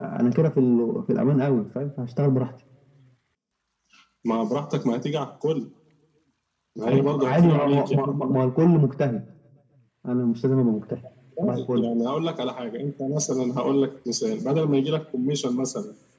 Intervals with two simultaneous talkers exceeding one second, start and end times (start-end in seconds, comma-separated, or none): 6.9-8.2